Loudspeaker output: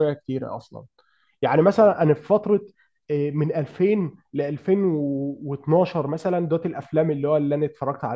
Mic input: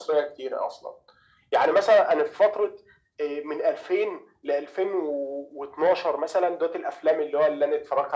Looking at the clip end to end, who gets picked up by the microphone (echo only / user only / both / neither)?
echo only